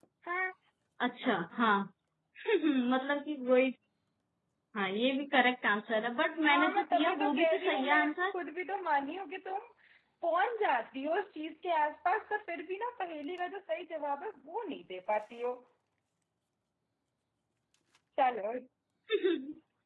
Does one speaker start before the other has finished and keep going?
Yes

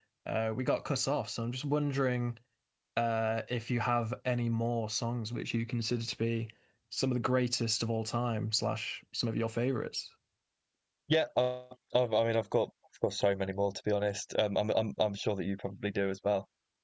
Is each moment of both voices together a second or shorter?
Yes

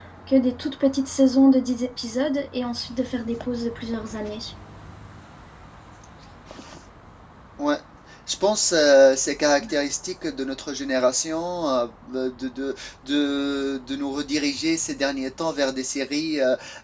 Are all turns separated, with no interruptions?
Yes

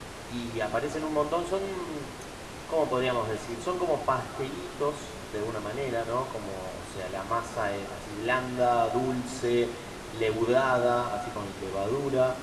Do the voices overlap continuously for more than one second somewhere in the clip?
No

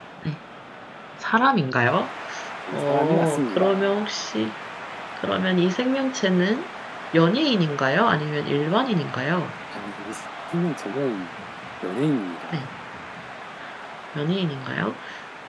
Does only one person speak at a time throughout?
No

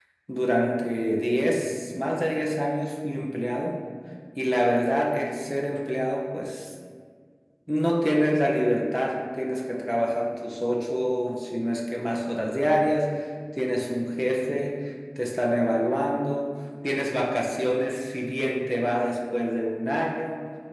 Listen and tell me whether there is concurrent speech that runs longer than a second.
No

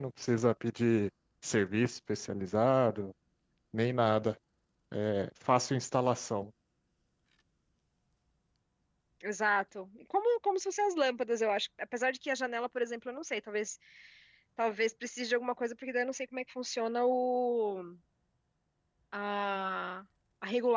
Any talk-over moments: No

